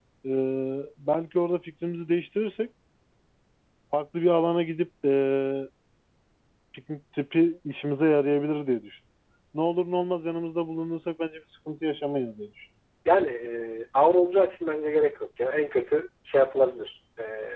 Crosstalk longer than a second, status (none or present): none